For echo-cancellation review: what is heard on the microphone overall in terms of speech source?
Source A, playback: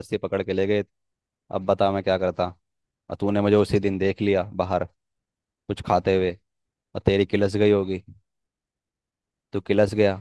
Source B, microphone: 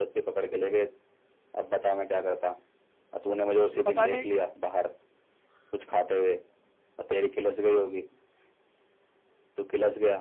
both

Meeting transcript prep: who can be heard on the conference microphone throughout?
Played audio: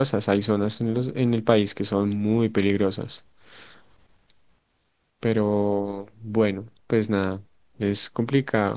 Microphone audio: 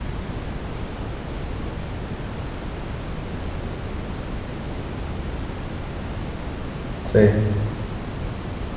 user only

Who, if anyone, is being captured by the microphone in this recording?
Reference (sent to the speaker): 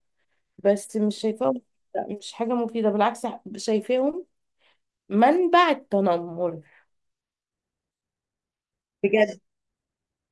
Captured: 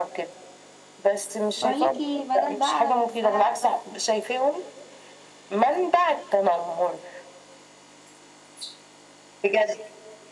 both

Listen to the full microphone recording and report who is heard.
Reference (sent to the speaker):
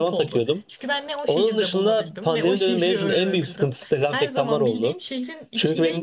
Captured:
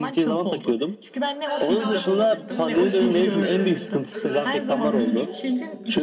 both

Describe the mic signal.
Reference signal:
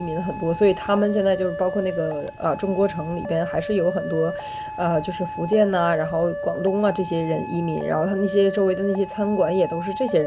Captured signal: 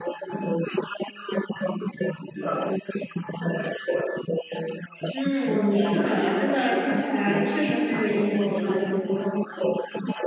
both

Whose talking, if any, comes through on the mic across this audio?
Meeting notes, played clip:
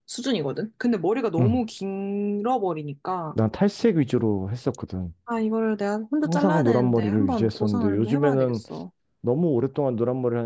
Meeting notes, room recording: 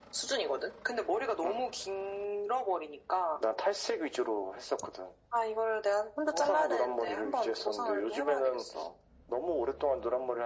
echo only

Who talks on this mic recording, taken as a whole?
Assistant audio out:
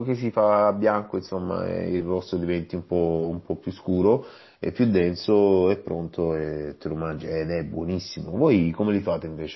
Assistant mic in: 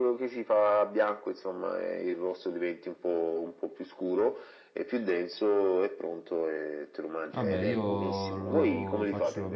both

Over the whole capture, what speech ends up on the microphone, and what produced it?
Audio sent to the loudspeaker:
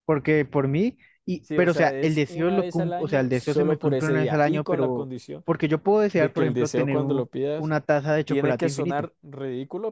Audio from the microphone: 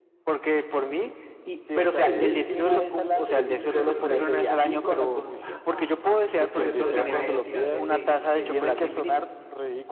both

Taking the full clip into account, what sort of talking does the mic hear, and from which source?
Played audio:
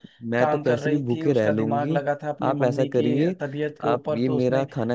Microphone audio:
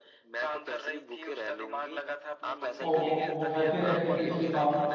both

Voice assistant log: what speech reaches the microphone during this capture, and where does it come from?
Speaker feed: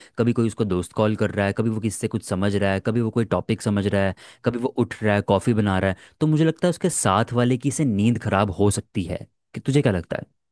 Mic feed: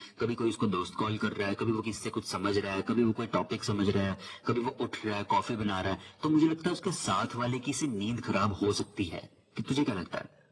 echo only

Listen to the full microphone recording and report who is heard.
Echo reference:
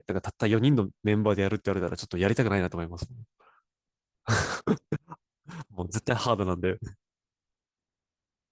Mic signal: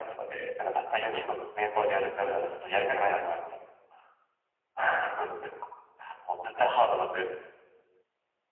echo only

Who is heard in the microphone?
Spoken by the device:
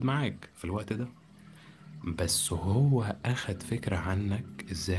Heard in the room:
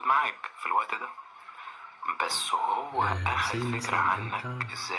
both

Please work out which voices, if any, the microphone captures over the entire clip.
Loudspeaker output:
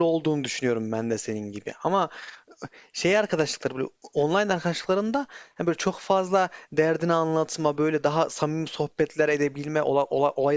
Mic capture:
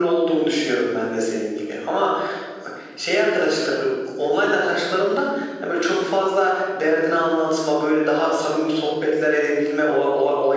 echo only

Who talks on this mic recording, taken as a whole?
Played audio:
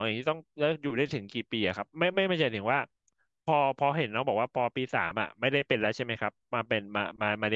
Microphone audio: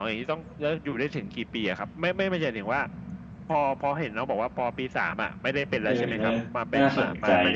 both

